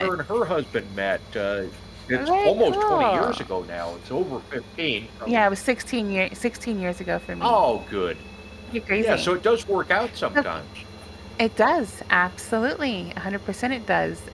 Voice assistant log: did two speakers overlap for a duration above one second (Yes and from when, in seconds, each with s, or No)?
Yes, from 2.1 s